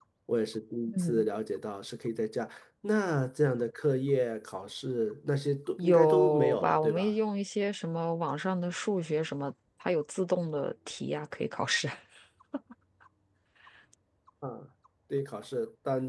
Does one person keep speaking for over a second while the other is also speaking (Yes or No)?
Yes